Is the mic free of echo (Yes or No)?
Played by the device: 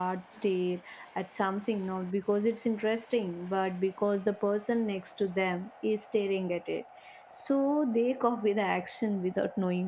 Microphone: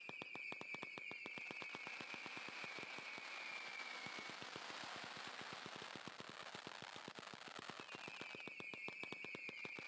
Yes